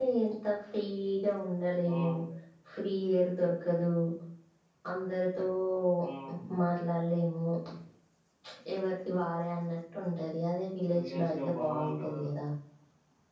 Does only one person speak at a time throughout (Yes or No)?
No